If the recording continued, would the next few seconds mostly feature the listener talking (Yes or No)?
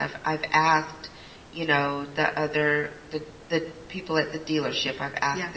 No